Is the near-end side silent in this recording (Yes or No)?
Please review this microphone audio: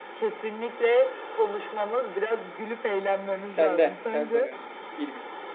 No